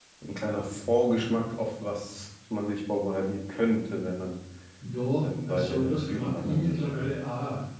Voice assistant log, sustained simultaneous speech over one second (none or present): present